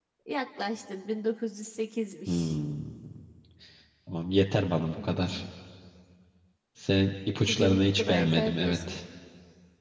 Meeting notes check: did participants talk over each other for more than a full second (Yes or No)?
Yes